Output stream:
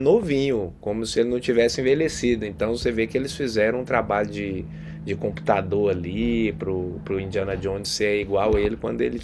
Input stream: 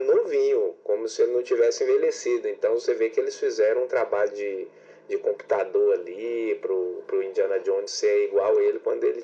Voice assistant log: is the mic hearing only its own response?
Yes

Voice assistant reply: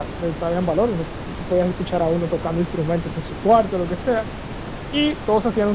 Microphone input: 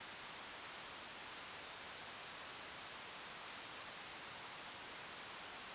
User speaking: No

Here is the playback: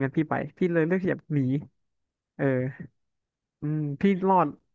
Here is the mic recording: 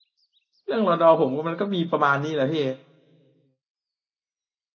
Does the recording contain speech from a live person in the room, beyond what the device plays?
Yes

